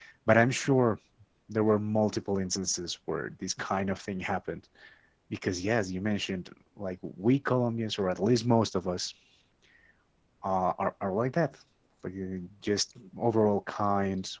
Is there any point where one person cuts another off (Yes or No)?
No